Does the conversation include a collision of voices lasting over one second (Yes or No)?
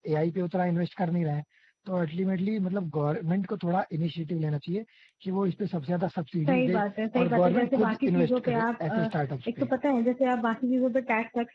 Yes